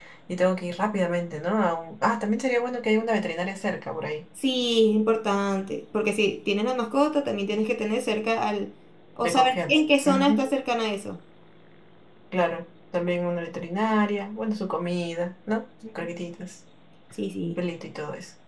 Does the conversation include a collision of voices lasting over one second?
Yes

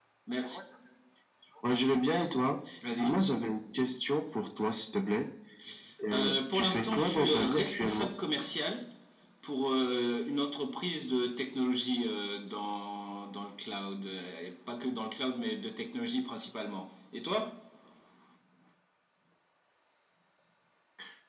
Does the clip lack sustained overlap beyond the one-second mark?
No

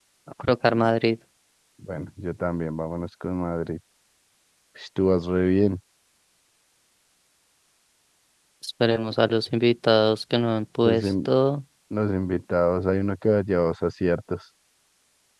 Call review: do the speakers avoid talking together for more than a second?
Yes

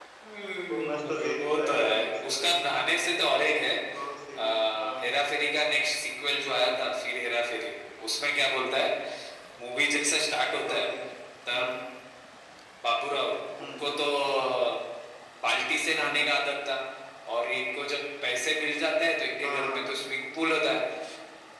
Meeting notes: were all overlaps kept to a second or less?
No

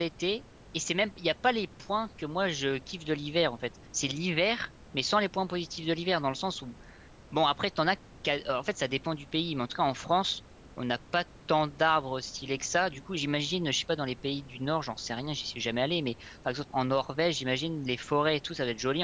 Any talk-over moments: No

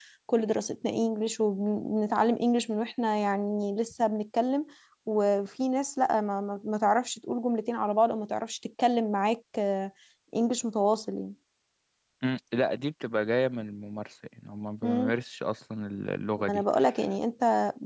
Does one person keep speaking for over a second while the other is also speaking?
No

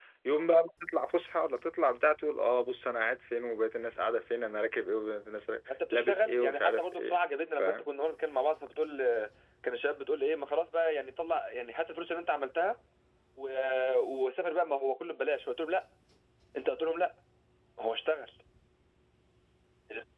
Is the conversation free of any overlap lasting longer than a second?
No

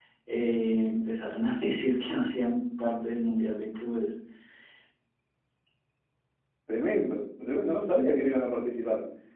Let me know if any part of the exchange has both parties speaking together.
No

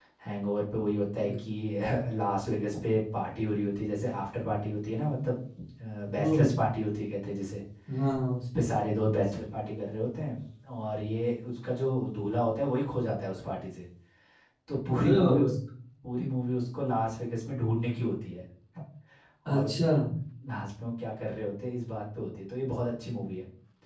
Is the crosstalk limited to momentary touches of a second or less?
Yes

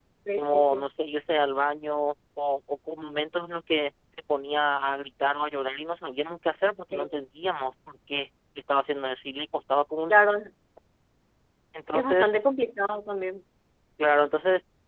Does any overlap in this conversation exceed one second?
No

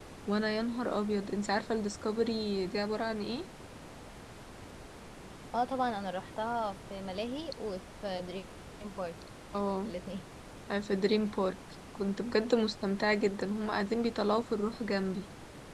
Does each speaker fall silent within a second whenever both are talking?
Yes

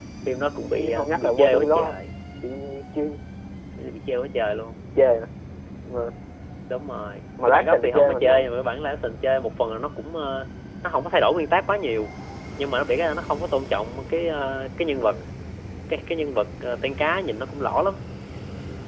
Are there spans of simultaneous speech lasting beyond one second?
Yes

